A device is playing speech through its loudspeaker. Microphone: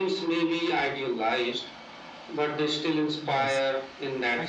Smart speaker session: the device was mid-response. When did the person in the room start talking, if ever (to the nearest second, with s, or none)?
3 s